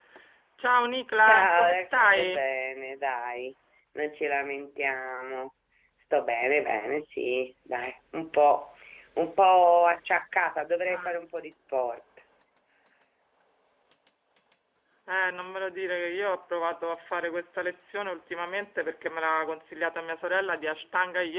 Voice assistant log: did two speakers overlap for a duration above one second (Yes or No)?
Yes